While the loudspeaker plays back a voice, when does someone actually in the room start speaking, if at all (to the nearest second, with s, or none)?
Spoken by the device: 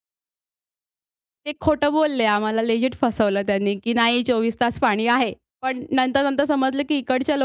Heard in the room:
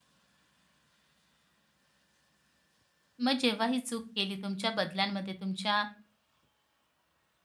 3 s